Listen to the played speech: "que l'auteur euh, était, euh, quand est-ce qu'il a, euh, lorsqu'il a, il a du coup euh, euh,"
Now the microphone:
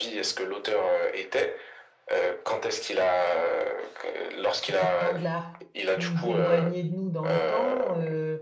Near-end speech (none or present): present